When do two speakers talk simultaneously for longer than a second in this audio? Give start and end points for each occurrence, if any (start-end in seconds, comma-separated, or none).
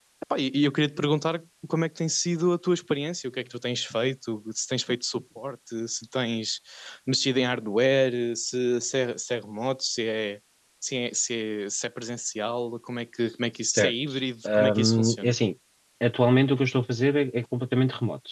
13.8-15.3